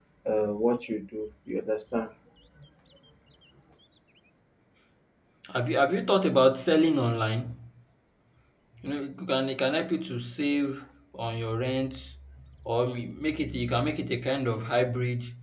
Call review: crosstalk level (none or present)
none